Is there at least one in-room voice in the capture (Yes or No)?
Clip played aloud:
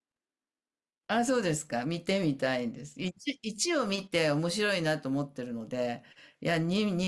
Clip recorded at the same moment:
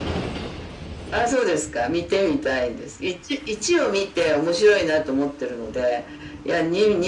No